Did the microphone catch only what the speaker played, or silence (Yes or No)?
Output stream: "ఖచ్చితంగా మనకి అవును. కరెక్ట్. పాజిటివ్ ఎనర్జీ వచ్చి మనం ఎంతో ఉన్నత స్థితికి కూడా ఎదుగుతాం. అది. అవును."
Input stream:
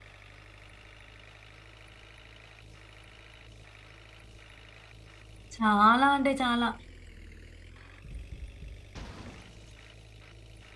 No